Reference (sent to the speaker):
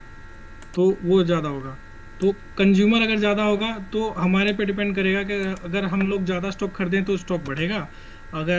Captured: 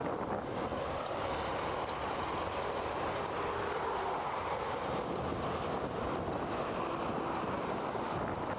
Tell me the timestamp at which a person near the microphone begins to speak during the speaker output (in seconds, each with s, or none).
none